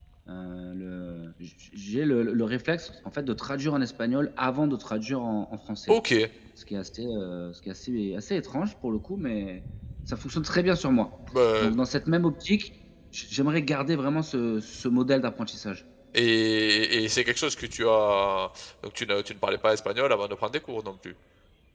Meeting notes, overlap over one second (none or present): none